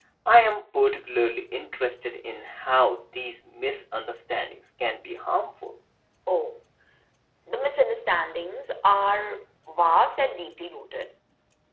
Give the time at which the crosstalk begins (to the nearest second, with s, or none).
none